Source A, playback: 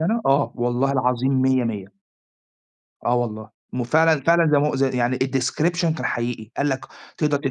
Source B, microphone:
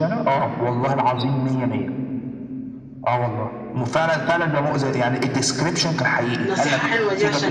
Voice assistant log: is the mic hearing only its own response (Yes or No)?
No